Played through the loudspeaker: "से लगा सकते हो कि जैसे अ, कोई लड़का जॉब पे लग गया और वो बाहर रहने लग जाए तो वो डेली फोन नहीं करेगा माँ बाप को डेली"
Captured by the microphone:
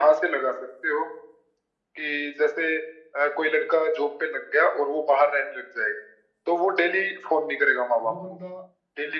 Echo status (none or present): present